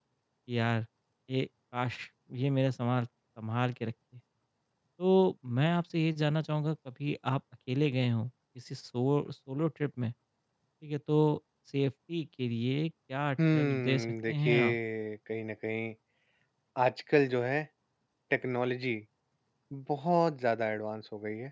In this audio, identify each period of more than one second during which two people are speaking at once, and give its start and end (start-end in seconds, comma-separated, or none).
13.5-14.8